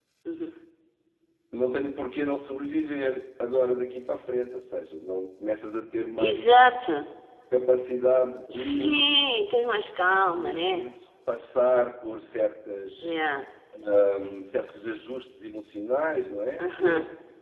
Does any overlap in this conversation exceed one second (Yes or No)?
No